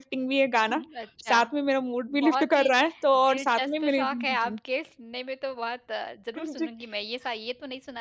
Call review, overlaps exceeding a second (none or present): present